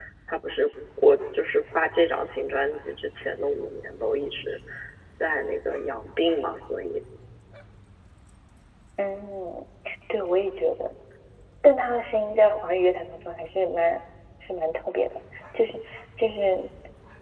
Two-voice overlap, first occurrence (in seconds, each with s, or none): none